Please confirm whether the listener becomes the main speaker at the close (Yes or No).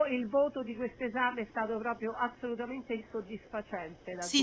Yes